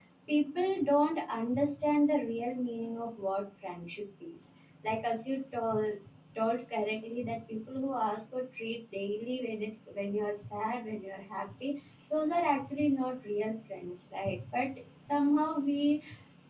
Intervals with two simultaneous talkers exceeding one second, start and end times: none

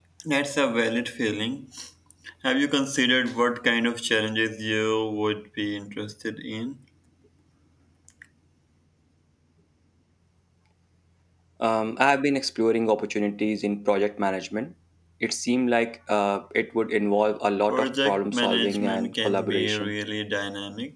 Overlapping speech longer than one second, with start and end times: 17.7-19.9

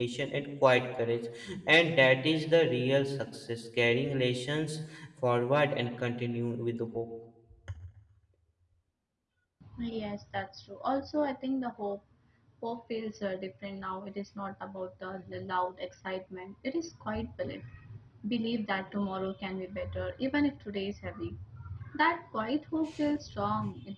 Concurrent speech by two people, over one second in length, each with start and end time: none

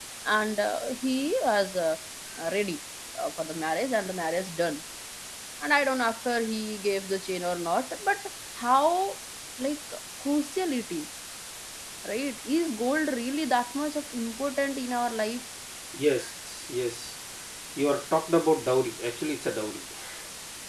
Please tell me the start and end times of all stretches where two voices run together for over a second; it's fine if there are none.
none

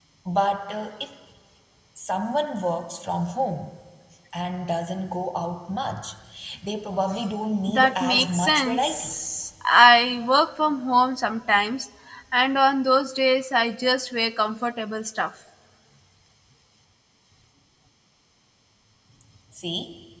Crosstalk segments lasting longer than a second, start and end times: 7.7-9.1

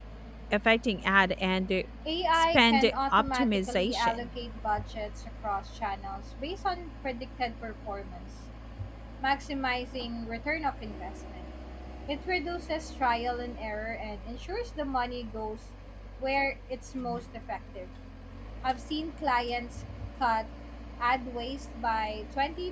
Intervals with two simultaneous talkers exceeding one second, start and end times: 2.3-4.3

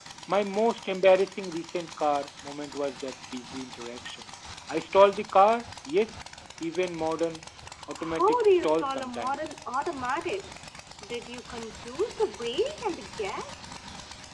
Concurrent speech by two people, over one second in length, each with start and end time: 8.0-9.4

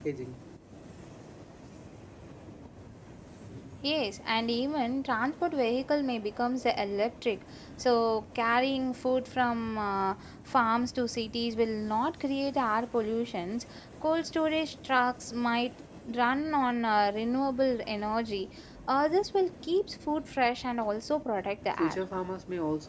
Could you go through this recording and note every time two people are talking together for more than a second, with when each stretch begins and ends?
none

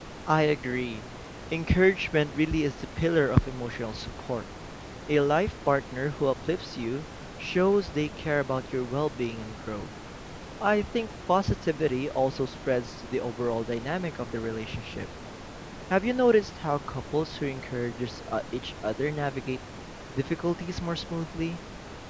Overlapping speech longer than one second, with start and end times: none

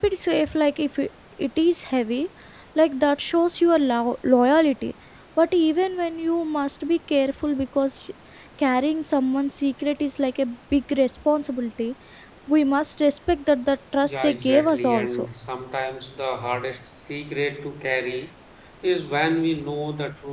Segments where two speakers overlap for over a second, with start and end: 14.0-15.3

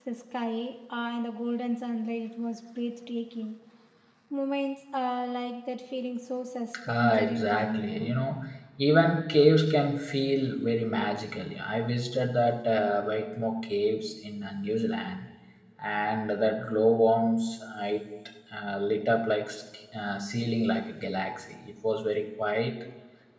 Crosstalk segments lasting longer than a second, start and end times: 6.9-8.1

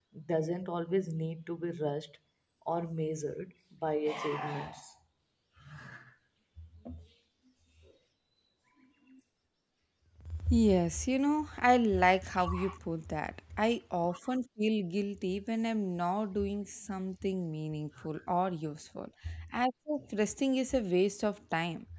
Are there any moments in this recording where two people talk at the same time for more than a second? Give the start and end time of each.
none

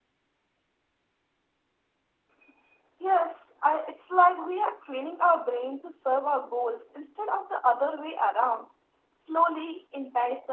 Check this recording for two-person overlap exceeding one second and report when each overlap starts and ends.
none

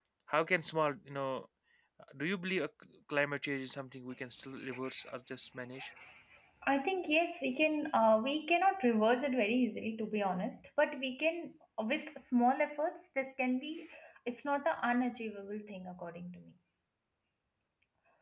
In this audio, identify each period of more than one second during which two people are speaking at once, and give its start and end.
none

